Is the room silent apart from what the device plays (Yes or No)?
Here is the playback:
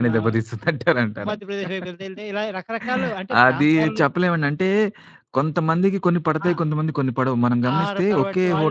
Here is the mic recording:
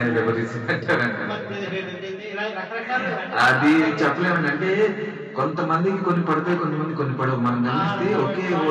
Yes